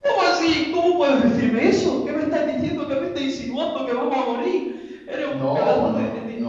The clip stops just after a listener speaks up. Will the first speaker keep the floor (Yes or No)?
No